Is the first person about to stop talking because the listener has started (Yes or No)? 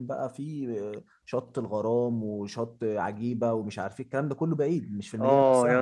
Yes